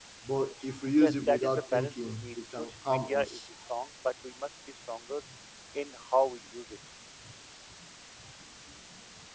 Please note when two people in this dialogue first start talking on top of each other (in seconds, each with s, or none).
1.0 s